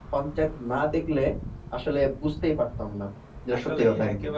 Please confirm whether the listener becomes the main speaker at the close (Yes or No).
Yes